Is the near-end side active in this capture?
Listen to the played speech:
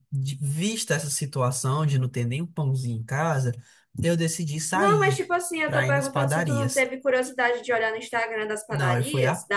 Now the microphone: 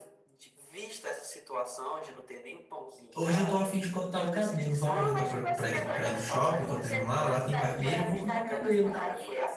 Yes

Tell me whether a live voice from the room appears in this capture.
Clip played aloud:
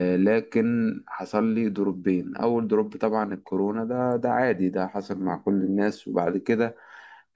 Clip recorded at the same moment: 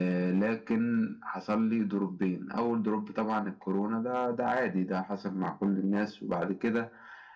No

